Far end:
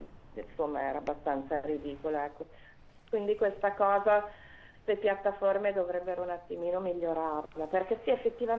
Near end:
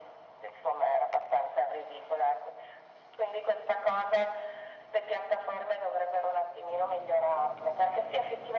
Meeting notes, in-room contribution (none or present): none